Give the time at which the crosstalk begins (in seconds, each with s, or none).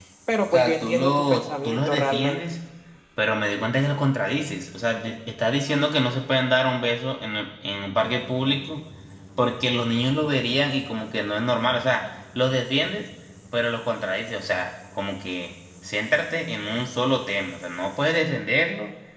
0.5 s